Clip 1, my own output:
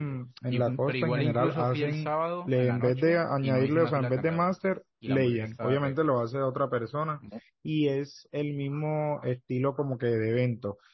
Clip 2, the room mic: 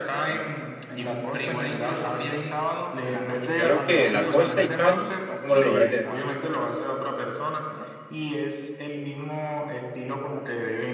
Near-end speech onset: 3.5 s

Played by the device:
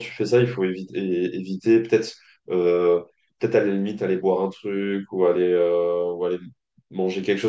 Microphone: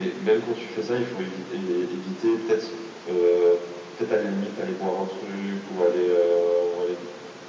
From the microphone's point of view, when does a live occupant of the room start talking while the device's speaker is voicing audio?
none

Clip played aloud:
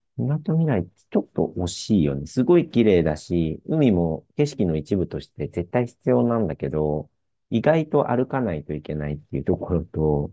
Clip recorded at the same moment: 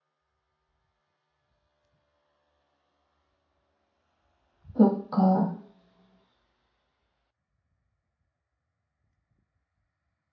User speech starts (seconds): 4.8 s

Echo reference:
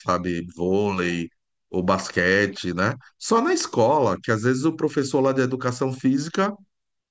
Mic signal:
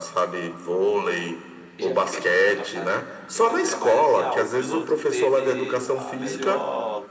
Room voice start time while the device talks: 1.8 s

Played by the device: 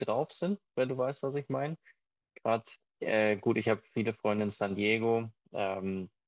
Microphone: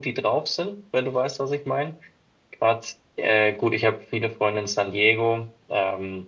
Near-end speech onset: none

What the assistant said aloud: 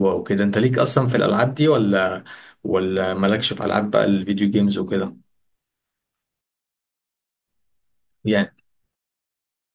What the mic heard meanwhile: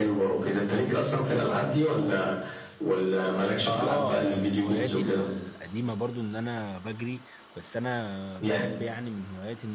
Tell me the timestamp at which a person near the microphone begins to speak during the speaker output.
3.6 s

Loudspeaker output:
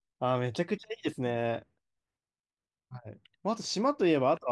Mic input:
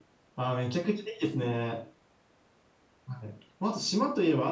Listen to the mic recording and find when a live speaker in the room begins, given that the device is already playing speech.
none

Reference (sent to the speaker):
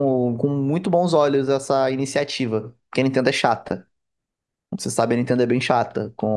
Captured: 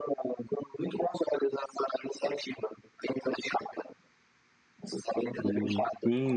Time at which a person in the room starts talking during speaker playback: 5.4 s

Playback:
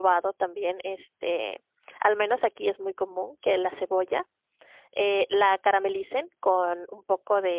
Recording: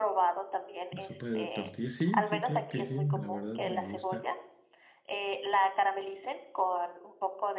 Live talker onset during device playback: 0.9 s

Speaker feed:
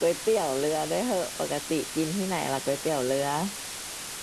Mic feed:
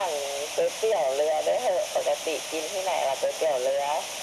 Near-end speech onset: none

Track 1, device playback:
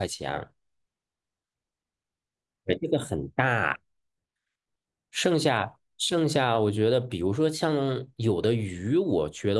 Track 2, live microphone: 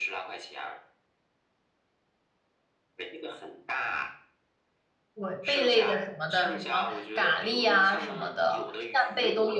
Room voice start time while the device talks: 5.1 s

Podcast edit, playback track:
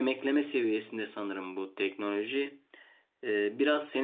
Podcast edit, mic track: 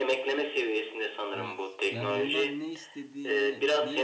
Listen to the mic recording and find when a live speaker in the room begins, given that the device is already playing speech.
1.3 s

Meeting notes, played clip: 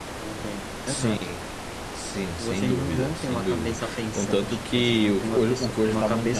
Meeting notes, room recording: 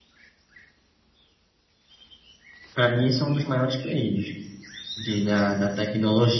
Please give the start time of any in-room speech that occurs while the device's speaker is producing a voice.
2.7 s

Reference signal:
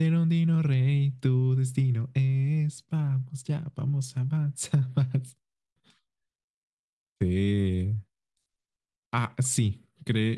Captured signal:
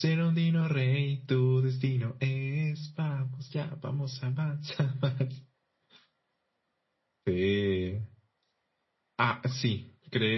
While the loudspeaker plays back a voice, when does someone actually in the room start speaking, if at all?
none

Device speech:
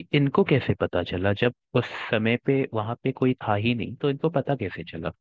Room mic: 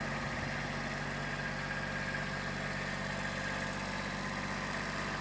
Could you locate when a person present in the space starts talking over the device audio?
none

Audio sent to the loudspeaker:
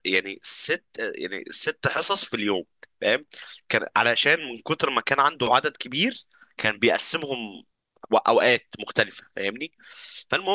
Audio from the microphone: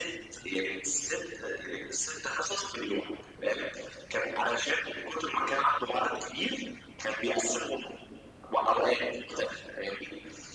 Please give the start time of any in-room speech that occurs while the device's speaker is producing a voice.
none

